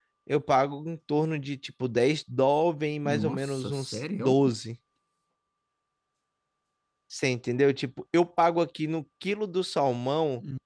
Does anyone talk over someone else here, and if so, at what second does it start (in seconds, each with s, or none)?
3.0 s